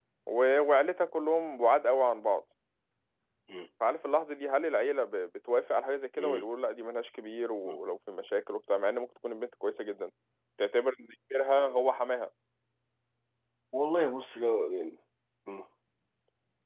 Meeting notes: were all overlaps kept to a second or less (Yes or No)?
Yes